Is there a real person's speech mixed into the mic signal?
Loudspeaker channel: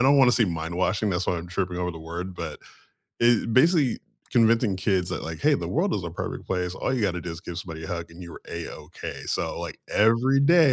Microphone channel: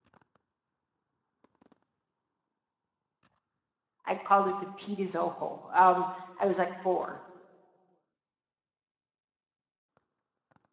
Yes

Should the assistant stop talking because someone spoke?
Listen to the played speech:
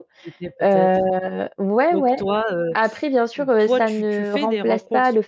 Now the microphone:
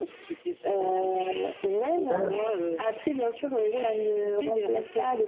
Yes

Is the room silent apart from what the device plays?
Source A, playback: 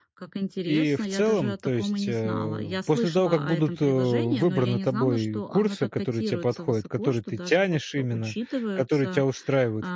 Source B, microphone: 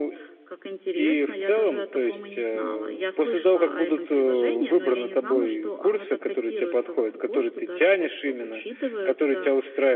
Yes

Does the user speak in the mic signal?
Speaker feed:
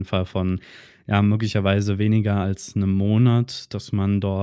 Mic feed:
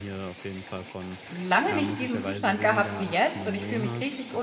Yes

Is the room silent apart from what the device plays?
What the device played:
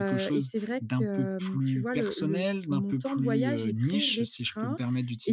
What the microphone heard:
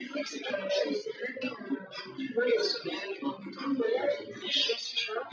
Yes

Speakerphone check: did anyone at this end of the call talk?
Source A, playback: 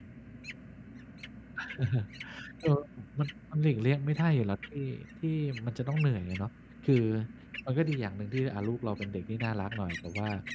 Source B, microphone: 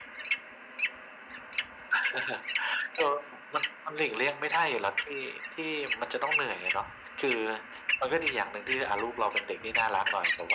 No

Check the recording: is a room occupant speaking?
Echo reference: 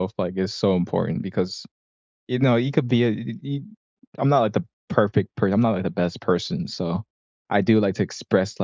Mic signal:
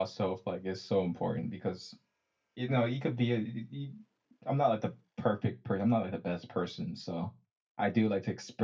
No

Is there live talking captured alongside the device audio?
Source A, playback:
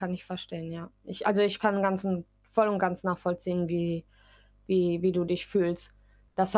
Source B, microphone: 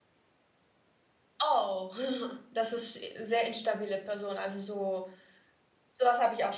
Yes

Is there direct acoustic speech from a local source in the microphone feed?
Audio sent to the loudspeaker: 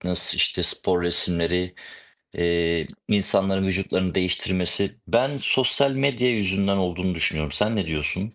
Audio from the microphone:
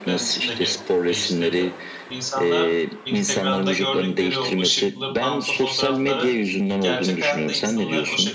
Yes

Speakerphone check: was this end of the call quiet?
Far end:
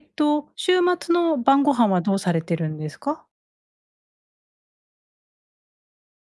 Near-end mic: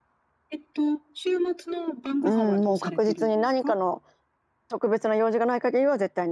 No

